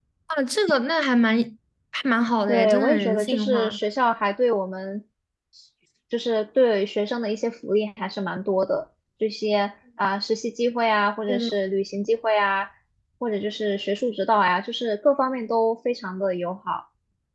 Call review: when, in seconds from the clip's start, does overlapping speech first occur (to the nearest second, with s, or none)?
2 s